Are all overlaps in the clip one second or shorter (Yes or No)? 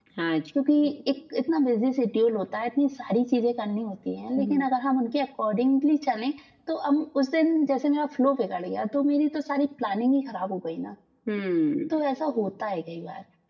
Yes